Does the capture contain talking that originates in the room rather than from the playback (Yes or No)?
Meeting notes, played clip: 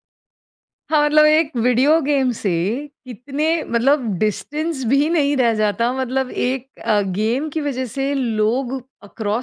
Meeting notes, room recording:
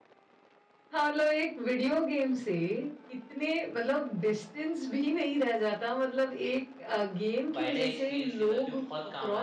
Yes